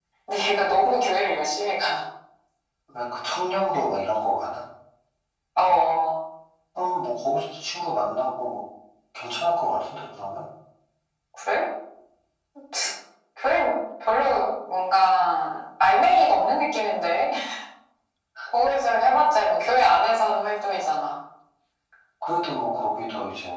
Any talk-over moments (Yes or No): No